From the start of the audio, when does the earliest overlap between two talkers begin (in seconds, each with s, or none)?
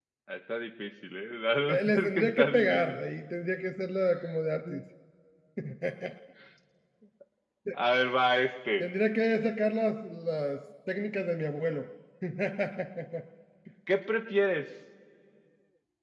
1.7 s